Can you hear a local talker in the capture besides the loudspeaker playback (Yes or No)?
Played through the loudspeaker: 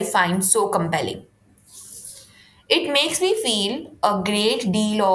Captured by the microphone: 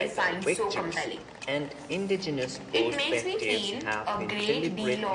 Yes